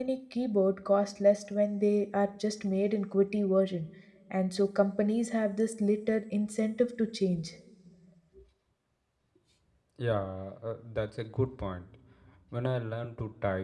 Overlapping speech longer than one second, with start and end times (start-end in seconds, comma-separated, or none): none